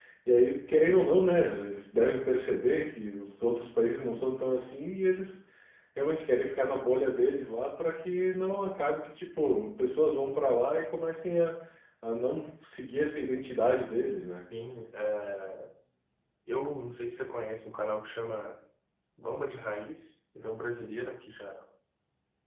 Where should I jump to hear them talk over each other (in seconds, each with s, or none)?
none